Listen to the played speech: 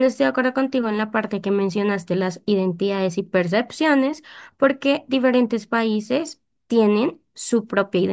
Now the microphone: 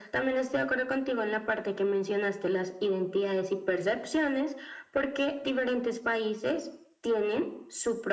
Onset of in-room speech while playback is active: none

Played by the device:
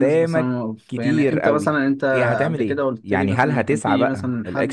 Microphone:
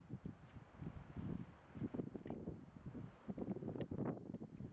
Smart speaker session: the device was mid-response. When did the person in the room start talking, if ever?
none

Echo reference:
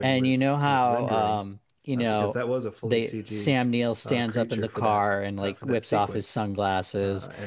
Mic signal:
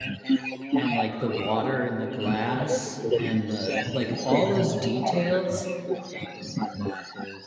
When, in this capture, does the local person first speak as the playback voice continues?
1 s

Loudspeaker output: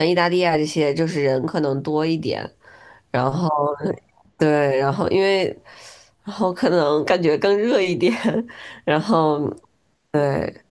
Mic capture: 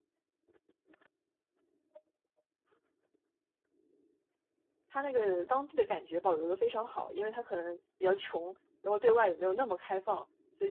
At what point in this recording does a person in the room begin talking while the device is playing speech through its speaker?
5 s

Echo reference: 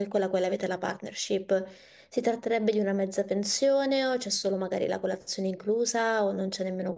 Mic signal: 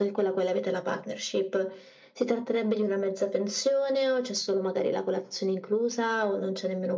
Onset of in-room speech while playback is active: none

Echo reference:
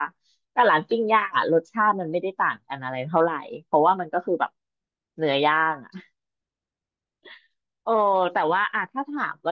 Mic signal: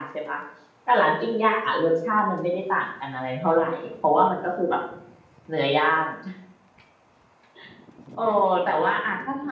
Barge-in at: none

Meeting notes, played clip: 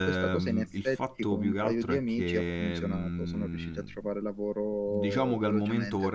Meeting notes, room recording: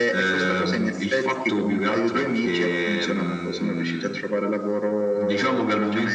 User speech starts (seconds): none

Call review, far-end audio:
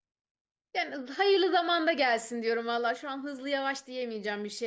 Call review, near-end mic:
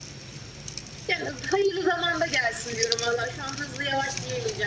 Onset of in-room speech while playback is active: none

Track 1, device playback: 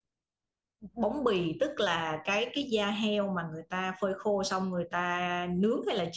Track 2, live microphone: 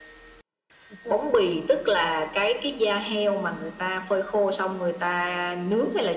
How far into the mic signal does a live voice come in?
none

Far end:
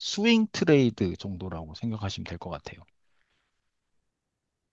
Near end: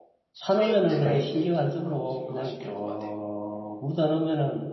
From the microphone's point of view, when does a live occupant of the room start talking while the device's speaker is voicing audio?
0 s

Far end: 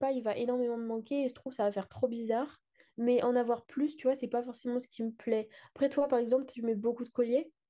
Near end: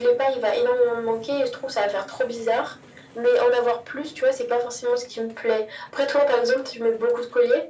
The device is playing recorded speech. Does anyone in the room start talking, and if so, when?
none

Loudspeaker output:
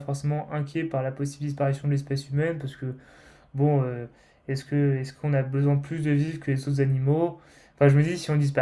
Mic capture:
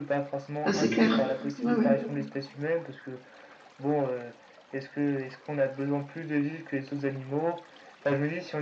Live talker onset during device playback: 1 s

